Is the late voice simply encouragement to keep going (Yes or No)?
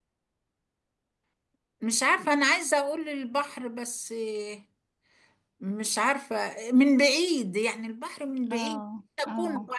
No